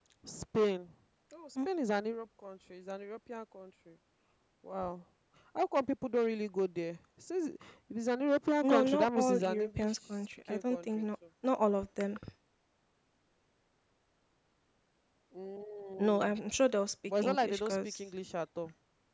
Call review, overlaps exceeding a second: present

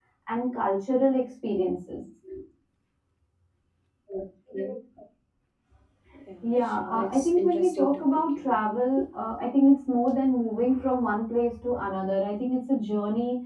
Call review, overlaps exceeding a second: present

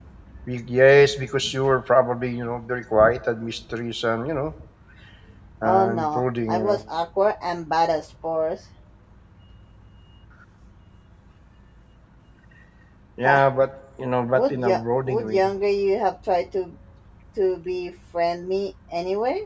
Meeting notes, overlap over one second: present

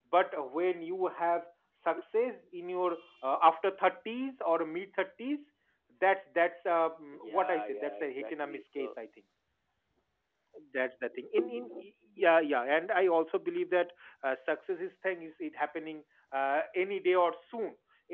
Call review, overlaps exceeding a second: present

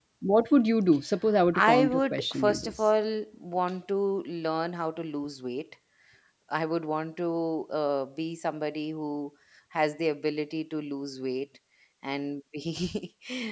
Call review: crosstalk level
present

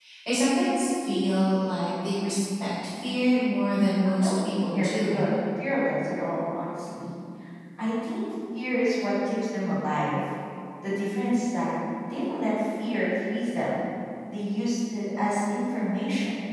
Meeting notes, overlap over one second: present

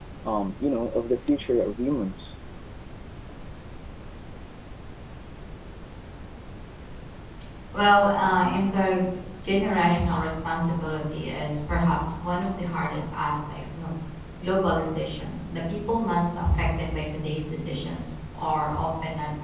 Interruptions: none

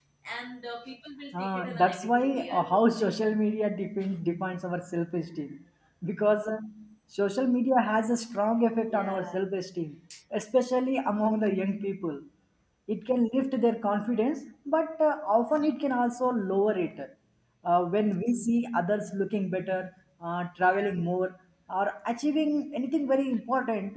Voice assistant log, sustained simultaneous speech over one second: present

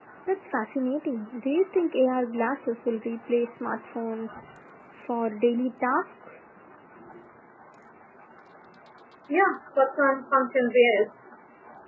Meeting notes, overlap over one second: none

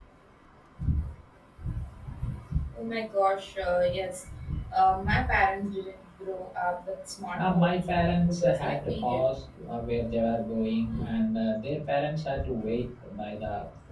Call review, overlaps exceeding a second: present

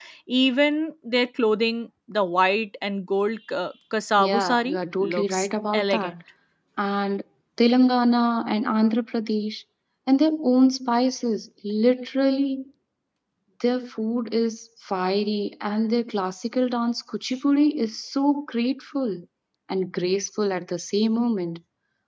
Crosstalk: present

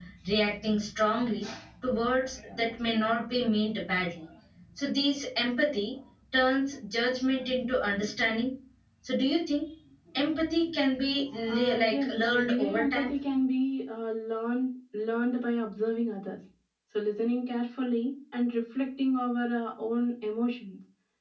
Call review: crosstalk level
present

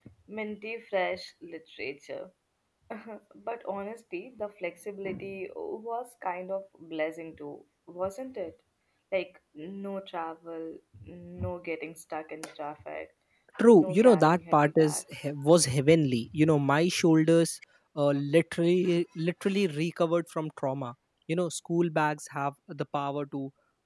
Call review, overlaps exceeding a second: present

